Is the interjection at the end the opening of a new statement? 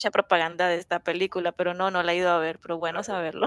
Yes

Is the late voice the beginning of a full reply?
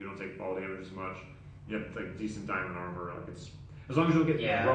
No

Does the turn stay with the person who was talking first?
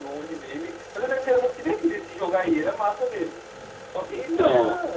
Yes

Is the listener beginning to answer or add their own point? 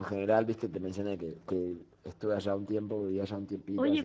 Yes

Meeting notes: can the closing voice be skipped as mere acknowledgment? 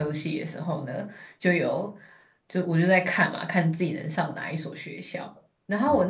Yes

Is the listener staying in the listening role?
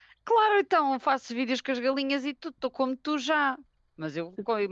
Yes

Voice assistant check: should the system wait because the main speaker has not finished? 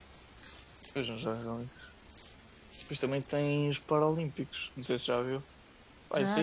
Yes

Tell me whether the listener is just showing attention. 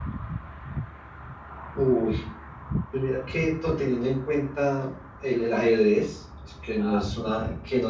Yes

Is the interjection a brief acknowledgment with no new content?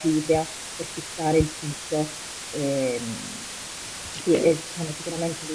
Yes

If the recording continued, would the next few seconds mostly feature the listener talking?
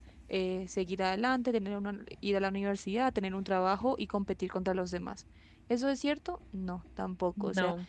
No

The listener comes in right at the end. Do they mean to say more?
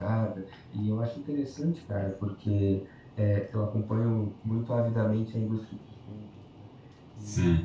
Yes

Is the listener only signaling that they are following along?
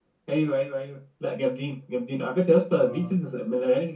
Yes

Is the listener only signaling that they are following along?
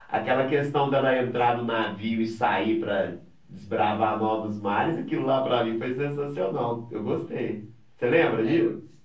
No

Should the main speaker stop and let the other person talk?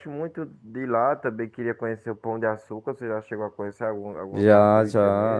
Yes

